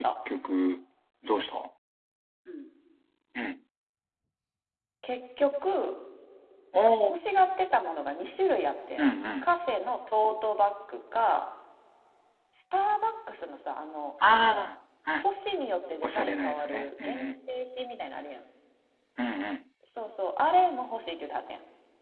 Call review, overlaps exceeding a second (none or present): present